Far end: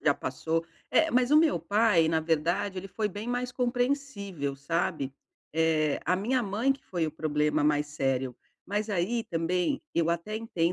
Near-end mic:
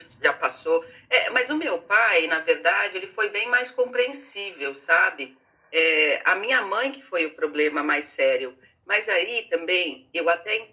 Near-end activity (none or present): none